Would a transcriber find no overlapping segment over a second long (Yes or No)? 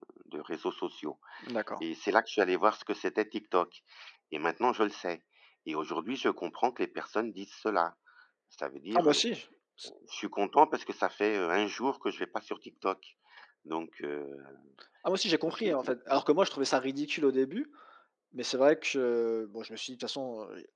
Yes